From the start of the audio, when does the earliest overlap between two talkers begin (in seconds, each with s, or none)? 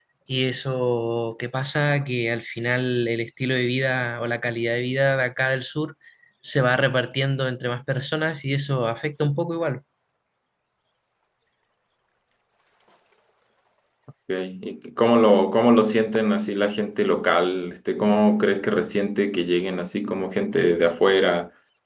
none